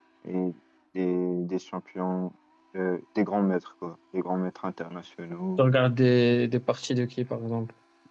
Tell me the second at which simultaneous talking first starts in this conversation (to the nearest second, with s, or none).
none